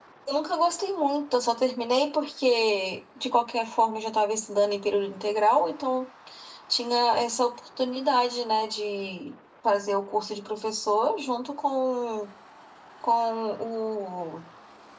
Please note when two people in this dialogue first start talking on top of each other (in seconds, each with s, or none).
none